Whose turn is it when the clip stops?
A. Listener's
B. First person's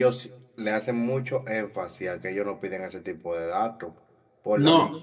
B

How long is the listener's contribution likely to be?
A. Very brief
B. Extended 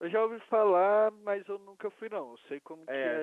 B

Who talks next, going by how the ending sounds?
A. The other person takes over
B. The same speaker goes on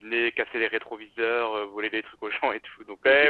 A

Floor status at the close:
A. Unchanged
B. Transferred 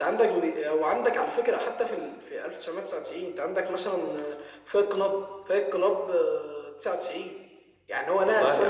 A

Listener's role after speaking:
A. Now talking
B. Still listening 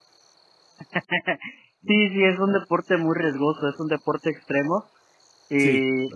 B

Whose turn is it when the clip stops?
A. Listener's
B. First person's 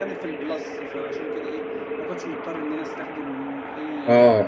A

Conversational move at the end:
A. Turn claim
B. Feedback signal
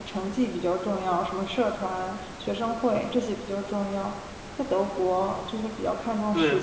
A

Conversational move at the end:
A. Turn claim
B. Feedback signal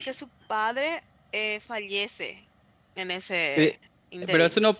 A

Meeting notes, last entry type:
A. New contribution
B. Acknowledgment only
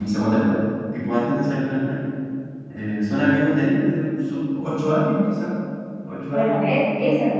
A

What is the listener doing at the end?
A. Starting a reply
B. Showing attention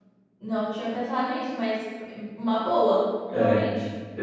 A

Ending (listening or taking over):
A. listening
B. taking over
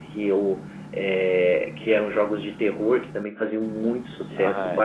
A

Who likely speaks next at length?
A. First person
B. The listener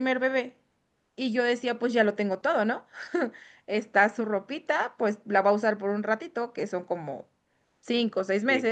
A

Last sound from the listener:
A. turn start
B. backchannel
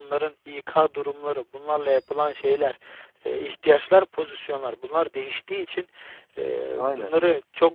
B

